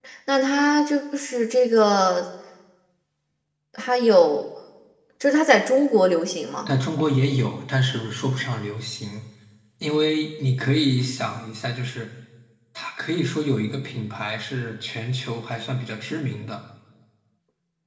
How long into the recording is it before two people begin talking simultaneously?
none

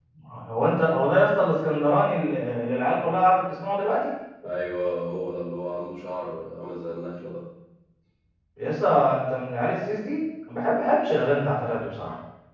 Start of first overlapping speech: none

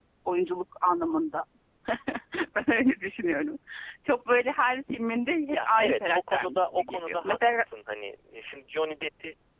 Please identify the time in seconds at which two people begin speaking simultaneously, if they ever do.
5.5 s

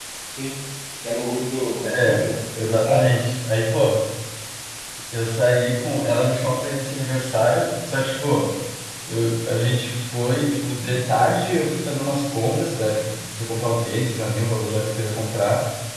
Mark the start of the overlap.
1.8 s

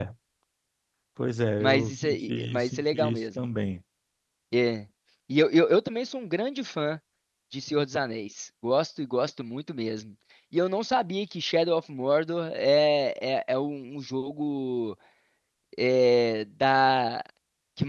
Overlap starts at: 1.6 s

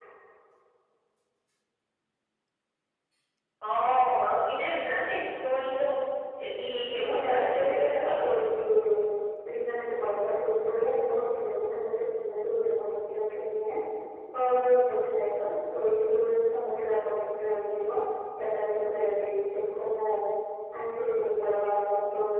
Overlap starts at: 6.9 s

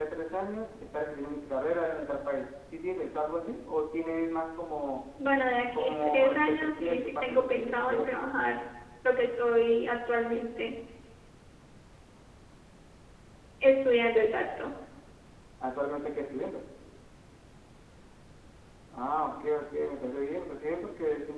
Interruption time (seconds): 5.7 s

